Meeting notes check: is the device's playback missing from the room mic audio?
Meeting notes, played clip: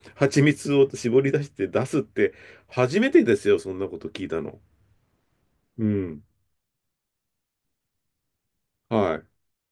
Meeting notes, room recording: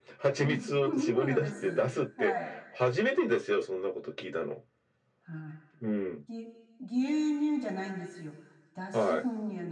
No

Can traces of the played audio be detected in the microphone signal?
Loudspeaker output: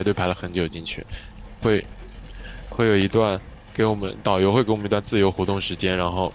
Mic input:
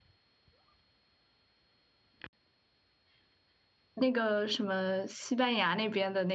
No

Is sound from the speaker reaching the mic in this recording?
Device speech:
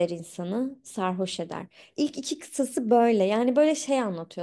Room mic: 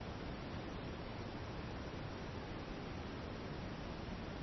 No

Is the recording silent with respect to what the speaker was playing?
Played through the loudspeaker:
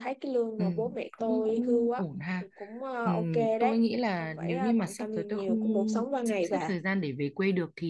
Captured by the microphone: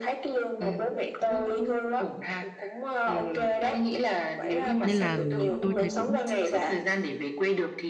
No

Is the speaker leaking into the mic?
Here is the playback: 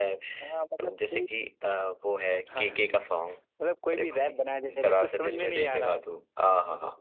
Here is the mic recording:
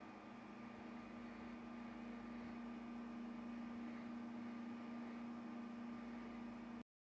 No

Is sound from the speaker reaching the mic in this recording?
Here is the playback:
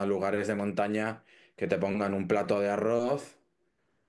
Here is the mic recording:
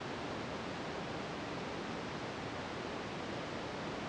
No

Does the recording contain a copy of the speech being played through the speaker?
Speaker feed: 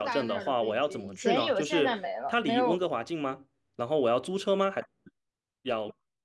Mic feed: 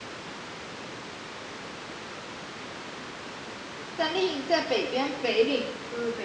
No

